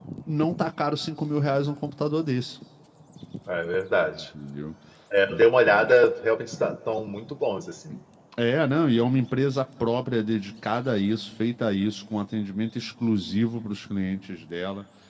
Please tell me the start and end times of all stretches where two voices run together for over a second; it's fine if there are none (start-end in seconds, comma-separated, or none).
none